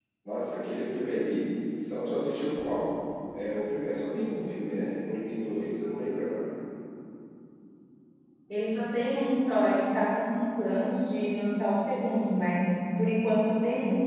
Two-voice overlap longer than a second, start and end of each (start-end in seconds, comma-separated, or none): none